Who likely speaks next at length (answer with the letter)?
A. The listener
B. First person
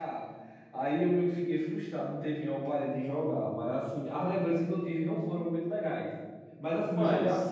B